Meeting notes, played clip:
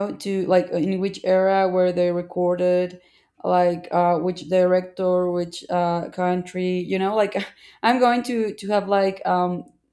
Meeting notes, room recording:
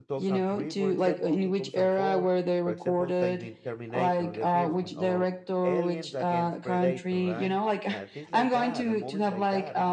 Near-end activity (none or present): present